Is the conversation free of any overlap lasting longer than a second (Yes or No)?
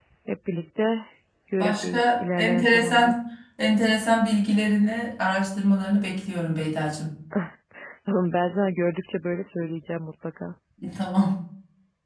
No